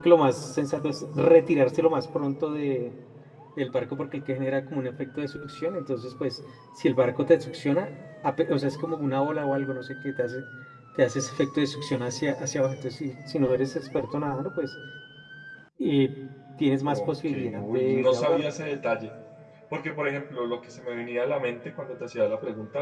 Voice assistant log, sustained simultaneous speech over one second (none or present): present